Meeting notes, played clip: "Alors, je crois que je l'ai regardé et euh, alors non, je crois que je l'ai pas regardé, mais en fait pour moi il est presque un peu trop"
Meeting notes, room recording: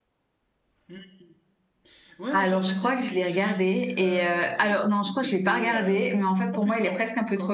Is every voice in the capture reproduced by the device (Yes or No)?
No